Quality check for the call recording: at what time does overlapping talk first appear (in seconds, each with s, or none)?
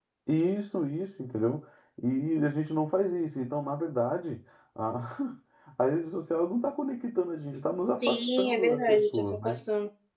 8.0 s